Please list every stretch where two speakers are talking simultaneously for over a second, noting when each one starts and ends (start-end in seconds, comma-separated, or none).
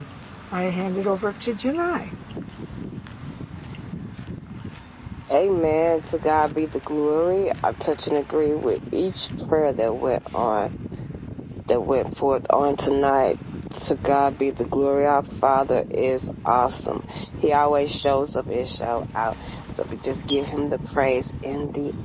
none